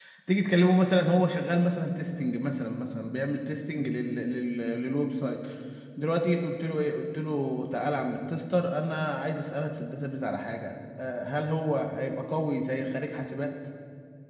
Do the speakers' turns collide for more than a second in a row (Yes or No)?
No